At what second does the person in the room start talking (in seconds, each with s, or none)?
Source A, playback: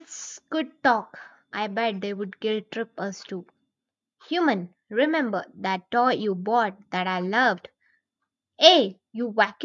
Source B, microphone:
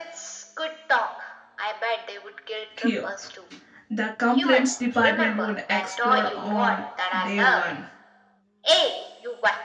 2.8 s